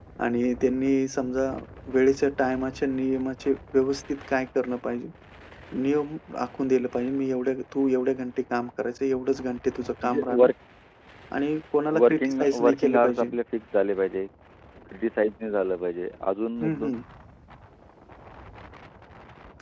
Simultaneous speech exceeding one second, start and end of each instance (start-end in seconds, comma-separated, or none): 12.0-13.3